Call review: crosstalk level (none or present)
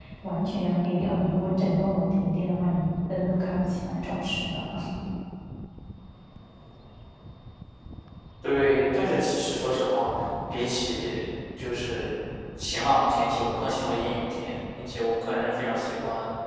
none